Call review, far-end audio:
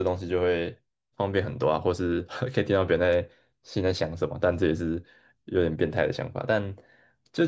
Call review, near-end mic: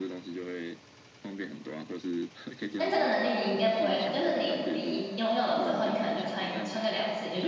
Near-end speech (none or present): present